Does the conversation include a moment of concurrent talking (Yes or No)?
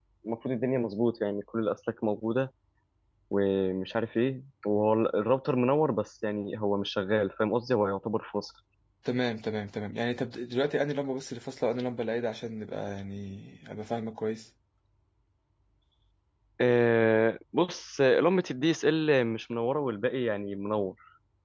No